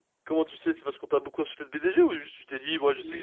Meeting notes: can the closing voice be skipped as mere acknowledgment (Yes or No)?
No